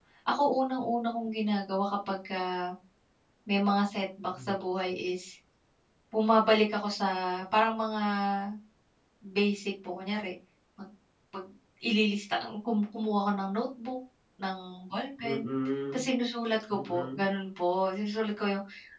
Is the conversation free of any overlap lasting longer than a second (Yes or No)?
Yes